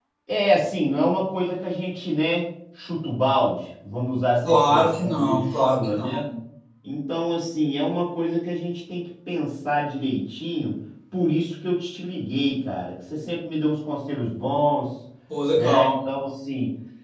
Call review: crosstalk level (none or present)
present